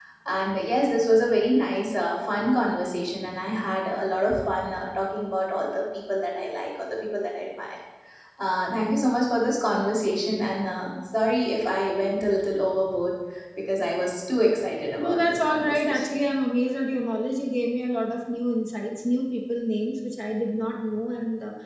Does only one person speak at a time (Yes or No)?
No